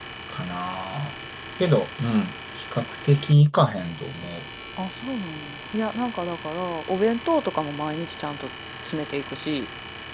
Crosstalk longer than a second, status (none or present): none